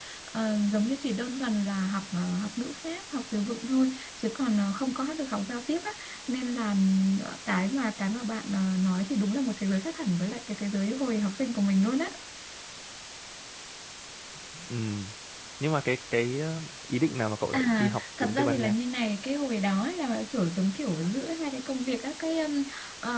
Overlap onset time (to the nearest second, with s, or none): 18 s